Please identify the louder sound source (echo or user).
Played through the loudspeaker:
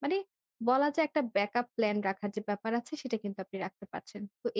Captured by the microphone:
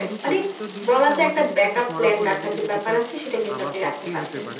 echo